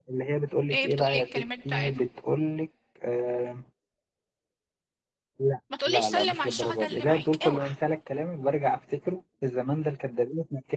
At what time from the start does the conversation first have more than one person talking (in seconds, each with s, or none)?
0.7 s